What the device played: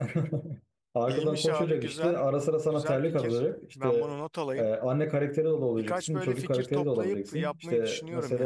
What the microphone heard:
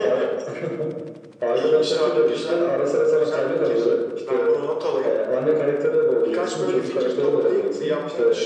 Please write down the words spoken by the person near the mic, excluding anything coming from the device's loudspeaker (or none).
none